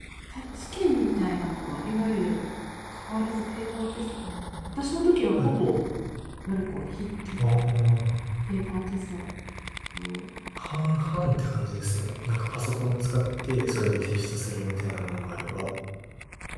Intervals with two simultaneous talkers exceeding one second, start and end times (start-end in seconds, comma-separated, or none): none